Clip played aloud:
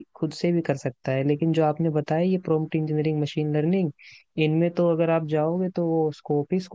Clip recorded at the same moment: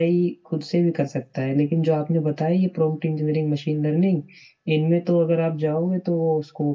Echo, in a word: present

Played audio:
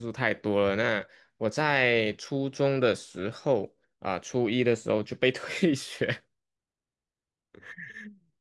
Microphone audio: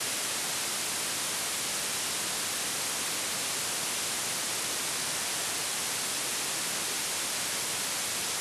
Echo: none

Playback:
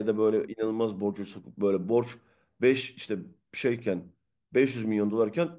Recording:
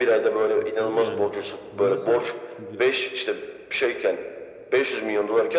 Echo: present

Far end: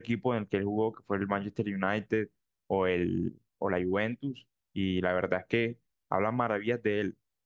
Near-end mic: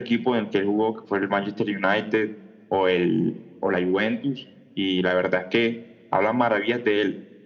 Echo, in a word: present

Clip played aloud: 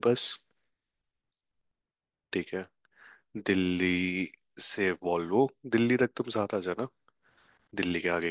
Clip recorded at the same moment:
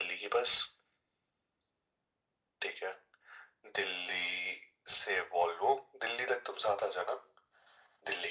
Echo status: present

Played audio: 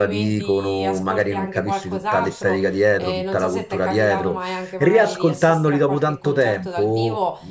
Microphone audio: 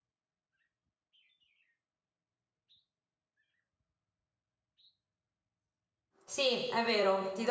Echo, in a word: none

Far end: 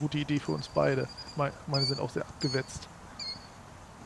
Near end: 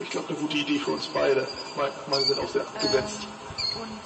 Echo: present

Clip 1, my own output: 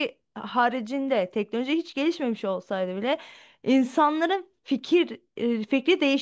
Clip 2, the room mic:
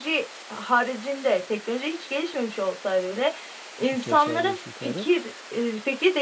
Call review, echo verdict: present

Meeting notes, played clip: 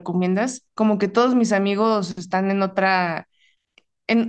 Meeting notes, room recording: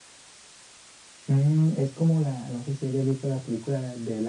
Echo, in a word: none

